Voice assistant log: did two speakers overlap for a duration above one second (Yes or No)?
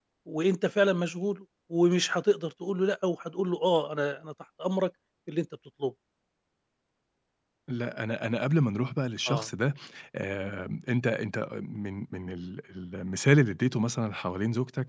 No